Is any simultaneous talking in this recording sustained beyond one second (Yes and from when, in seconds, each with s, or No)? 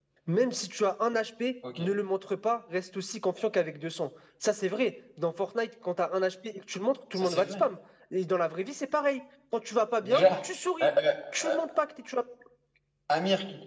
No